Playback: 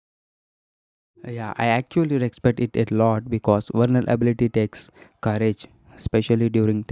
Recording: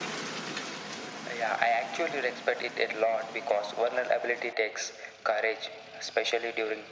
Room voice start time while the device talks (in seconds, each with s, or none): none